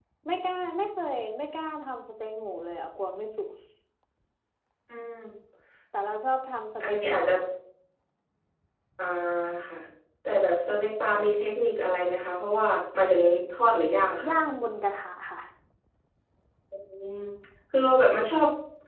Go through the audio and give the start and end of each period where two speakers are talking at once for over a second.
none

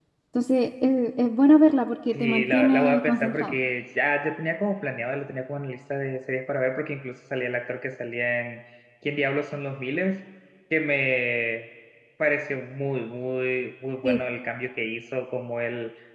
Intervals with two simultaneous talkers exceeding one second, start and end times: 2.1-3.5

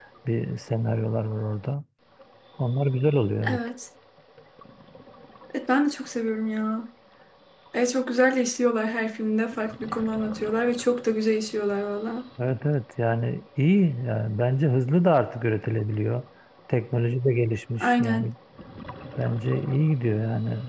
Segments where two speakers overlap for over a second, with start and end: none

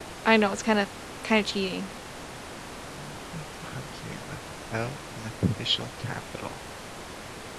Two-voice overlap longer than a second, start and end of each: none

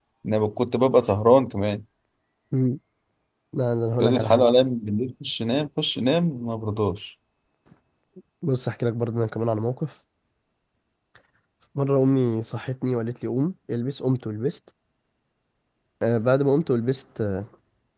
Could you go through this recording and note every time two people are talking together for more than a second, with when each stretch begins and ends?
none

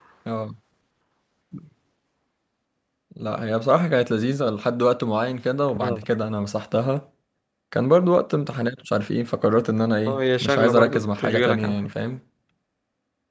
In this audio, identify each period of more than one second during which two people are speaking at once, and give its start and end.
10.1-11.8

